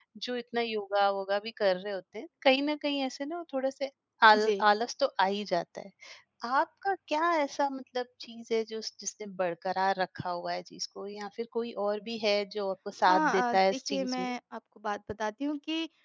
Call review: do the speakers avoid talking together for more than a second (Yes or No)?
No